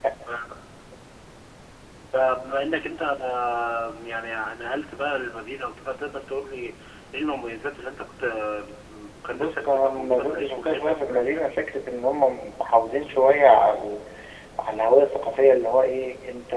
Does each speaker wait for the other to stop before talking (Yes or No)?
No